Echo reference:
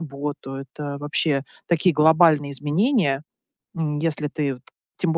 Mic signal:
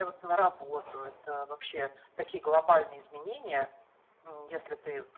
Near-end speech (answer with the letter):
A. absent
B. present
A